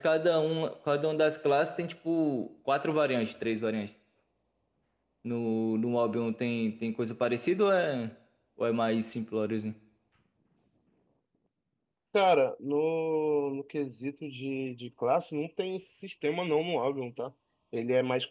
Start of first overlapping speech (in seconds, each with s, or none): none